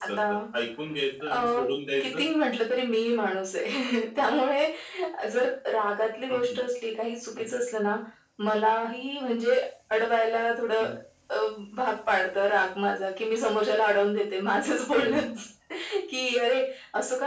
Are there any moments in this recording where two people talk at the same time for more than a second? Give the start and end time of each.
none

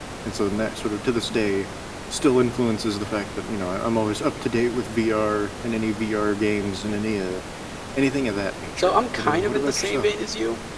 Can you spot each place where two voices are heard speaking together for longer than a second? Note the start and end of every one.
8.8-10.1

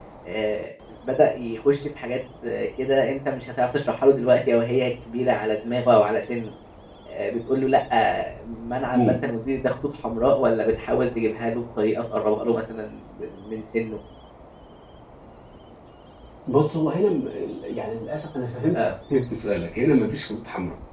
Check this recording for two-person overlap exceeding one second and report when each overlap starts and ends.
none

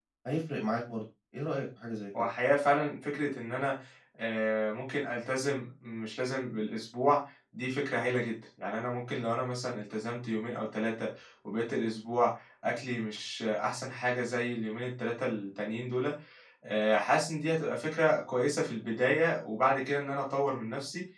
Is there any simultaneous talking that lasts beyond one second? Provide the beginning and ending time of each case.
none

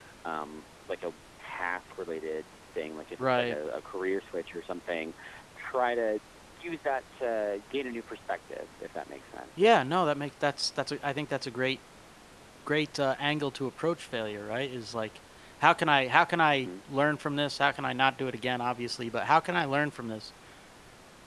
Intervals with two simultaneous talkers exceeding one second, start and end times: none

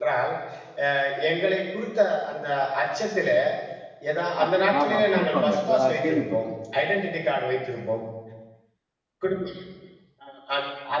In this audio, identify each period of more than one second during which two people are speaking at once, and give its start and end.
4.8-6.4

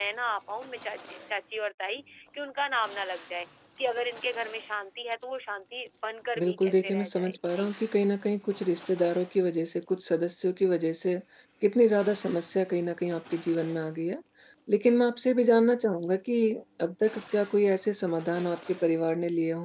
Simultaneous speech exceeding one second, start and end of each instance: 6.4-7.8

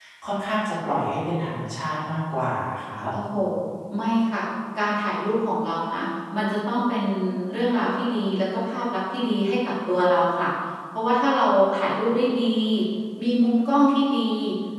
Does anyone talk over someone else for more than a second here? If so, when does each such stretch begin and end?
none

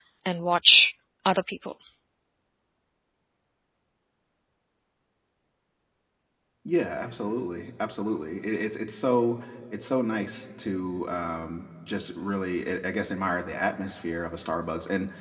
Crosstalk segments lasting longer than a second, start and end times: none

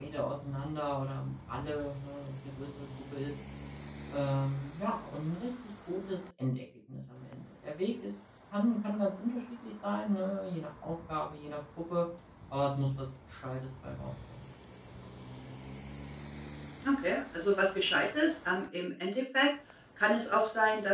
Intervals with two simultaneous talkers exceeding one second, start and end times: none

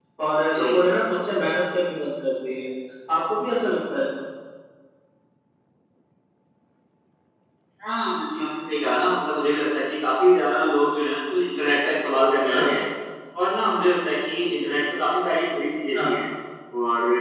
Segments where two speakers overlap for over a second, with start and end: none

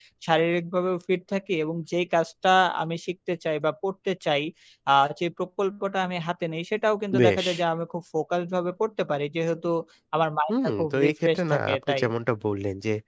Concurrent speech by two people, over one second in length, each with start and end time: 10.8-12.0

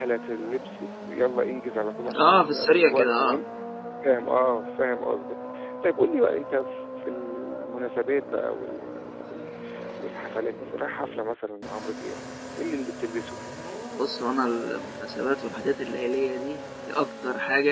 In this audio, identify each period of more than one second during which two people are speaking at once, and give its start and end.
2.2-3.4

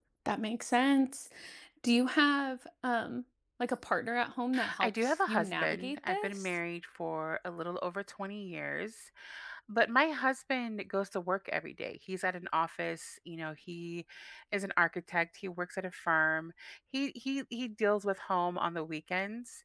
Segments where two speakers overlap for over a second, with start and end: 4.8-6.5

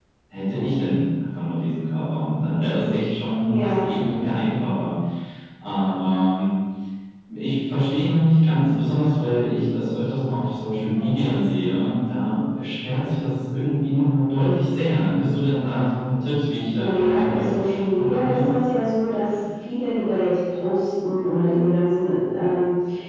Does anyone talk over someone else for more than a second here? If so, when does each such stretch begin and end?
16.8-18.5

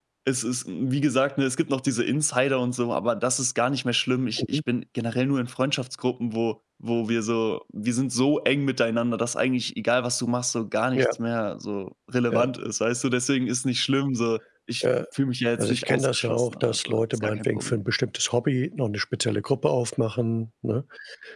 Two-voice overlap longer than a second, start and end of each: 15.6-17.8

